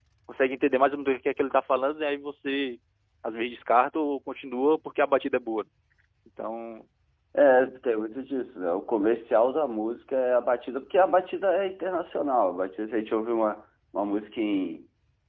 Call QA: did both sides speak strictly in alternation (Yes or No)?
Yes